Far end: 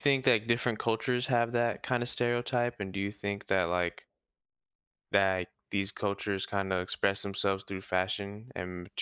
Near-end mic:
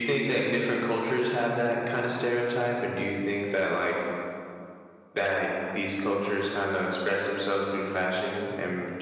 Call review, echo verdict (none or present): present